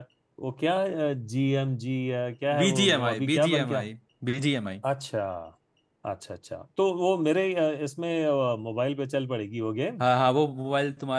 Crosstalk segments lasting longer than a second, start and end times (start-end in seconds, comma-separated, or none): 2.6-3.9